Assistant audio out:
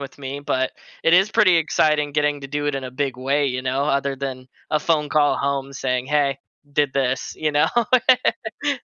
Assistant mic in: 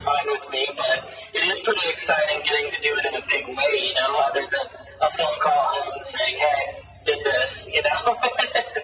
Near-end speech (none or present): none